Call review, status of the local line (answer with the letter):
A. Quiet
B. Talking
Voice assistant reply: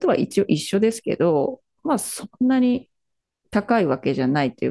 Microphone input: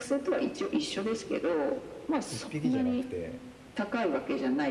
B